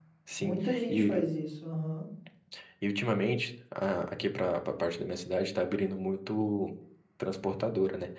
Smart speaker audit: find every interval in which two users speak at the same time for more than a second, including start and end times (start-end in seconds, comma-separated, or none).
none